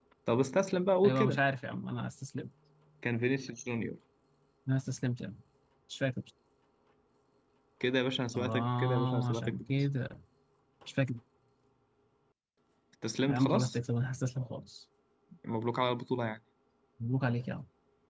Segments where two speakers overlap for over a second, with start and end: 8.3-9.6

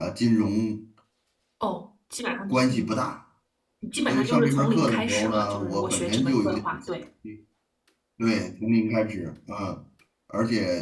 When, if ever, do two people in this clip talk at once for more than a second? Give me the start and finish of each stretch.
4.1-6.6

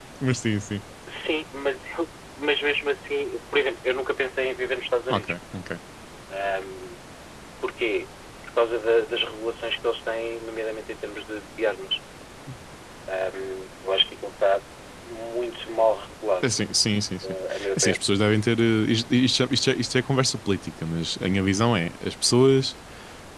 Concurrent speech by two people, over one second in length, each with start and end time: none

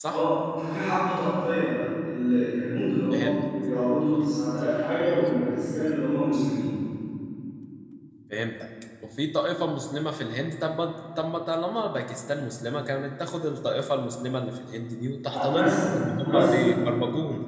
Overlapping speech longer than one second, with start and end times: 15.3-16.6

